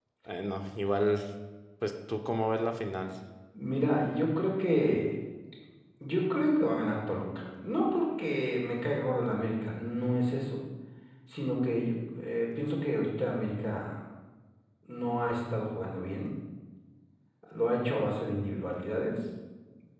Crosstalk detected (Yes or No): No